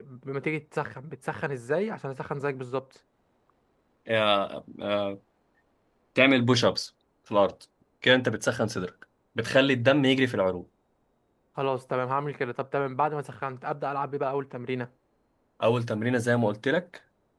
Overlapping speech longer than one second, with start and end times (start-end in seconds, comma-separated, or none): none